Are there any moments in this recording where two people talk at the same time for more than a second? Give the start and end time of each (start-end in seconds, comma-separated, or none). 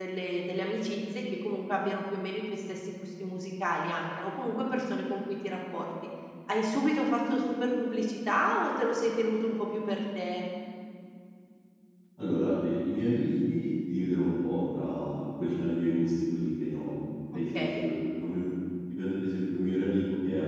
none